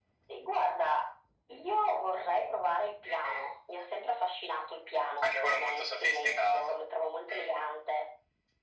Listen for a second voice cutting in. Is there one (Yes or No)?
Yes